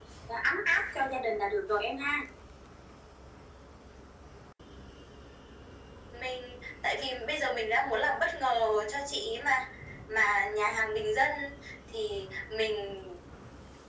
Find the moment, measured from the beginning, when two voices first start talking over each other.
none

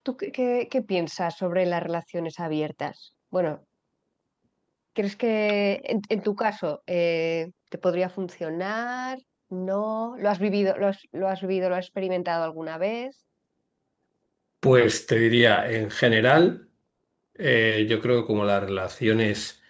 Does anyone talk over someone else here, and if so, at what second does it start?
none

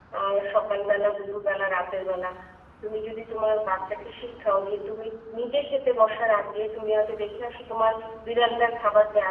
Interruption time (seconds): none

